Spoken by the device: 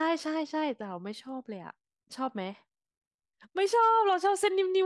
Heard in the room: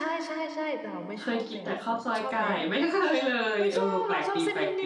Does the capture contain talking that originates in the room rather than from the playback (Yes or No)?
Yes